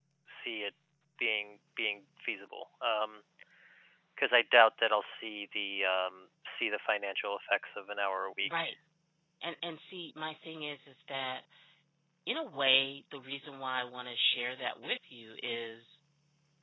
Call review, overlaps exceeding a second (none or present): none